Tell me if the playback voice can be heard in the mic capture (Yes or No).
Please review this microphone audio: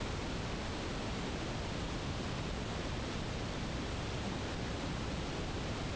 No